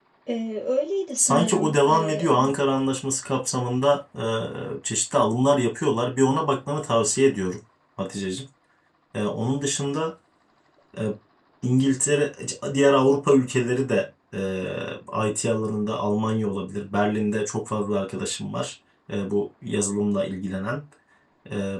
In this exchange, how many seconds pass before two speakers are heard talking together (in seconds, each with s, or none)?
1.2 s